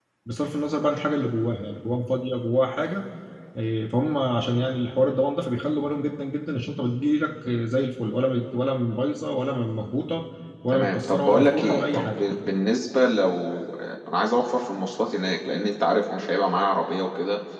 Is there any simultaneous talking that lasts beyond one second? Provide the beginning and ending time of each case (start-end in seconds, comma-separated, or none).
10.7-12.2